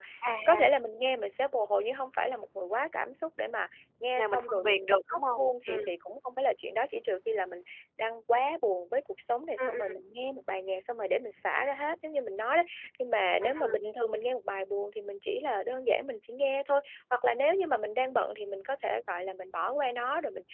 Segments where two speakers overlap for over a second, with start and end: 4.2-5.8

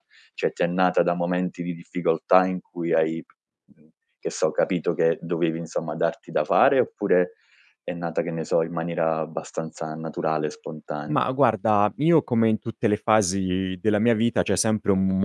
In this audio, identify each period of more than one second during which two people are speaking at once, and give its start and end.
none

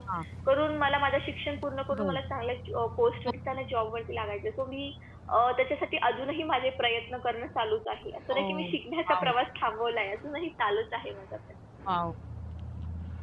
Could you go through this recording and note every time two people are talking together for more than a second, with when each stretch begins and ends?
none

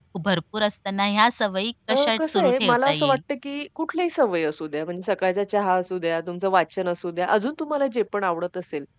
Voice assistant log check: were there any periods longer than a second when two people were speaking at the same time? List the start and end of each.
1.9-3.2

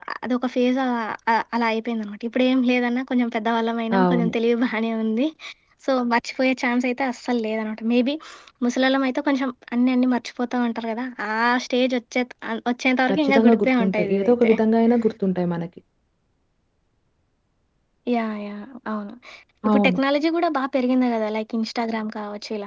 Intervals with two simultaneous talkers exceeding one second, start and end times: 13.1-14.5

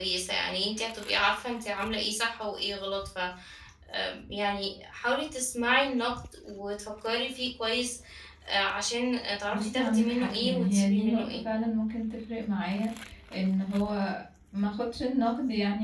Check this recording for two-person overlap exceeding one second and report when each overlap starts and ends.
9.5-11.4

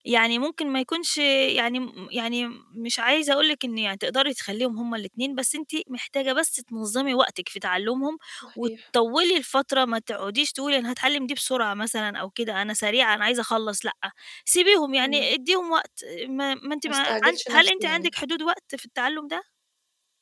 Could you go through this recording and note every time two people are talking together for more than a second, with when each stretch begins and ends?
16.8-18.1

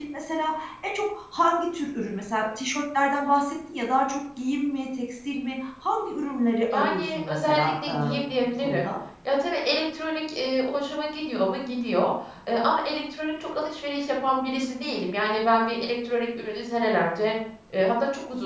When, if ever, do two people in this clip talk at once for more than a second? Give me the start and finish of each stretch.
6.7-7.9

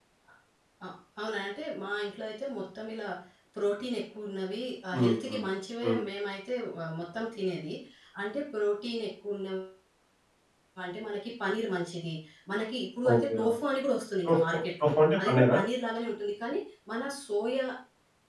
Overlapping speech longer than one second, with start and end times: 14.3-15.6

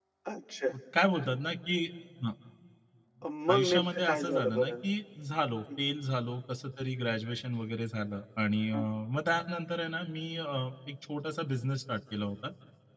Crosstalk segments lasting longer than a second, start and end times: 3.5-4.7

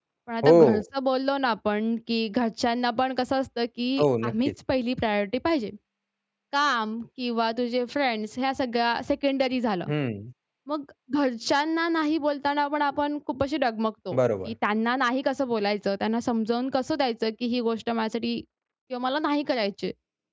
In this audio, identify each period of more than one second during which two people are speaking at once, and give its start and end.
none

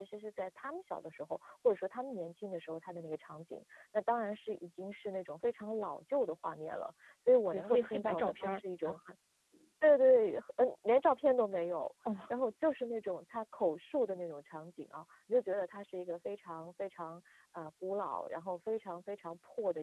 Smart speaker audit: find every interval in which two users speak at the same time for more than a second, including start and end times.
7.5-9.0

